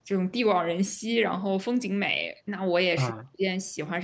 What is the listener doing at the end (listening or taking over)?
listening